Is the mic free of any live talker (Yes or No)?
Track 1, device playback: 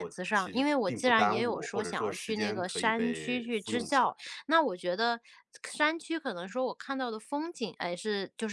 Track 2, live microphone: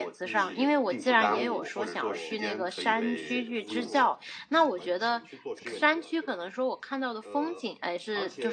No